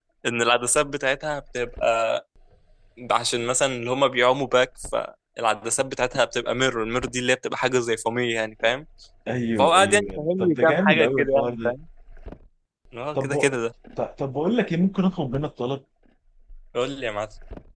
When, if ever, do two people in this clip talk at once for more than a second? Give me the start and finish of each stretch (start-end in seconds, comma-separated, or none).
9.6-11.7